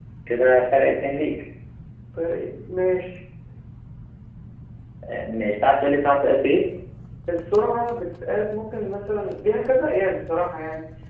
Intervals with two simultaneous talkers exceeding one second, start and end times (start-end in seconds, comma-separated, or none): none